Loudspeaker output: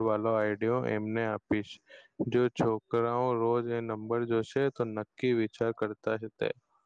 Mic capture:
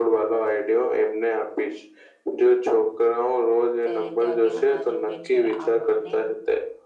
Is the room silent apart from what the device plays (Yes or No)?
No